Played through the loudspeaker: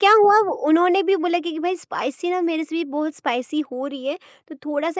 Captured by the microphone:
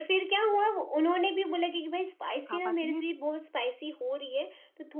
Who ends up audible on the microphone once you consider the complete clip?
both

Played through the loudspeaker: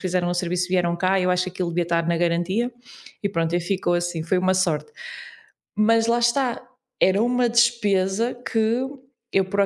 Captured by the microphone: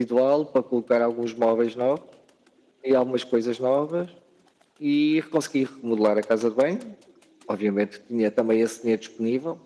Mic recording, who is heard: user only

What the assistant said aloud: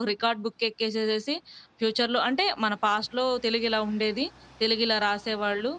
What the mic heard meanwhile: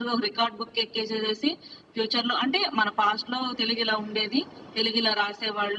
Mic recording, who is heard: echo only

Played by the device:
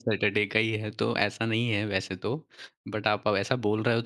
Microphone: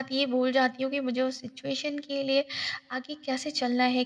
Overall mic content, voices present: user only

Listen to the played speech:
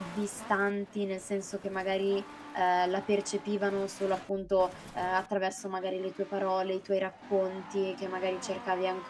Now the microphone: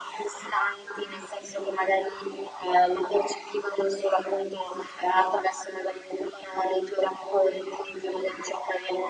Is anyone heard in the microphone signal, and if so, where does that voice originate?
echo only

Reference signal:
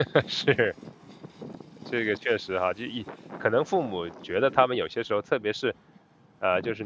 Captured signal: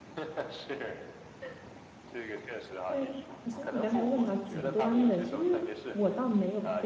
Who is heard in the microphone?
both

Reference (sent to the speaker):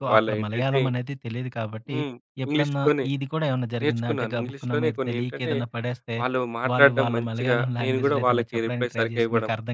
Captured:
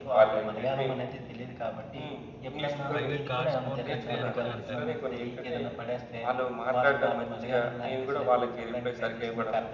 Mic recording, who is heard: both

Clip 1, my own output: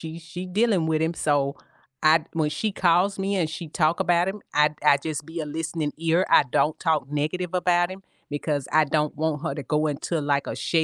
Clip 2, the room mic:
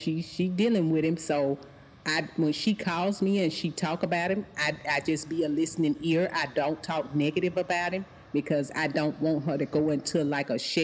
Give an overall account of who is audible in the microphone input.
echo only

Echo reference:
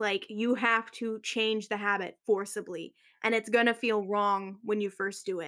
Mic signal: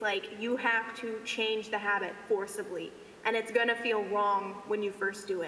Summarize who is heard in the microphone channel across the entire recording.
echo only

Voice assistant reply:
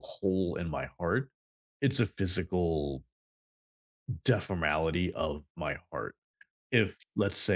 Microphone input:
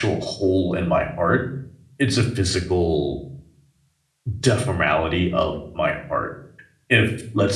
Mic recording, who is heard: echo only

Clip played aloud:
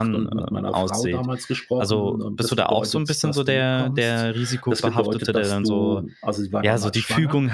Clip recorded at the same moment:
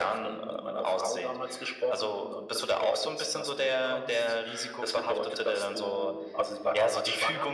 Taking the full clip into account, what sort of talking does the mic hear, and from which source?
echo only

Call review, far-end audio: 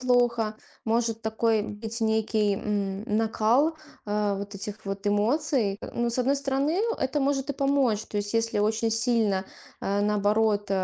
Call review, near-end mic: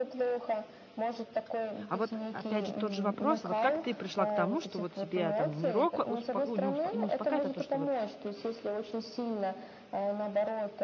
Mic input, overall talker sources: both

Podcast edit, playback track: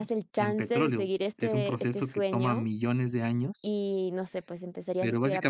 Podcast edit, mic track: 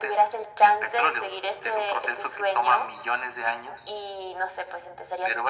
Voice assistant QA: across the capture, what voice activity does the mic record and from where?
echo only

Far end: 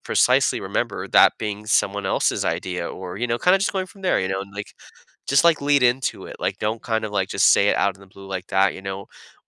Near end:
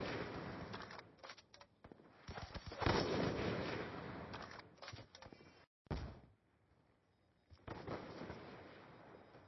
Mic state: neither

